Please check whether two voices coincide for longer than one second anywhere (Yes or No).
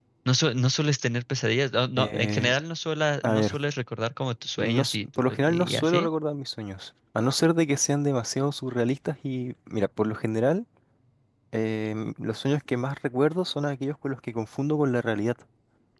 Yes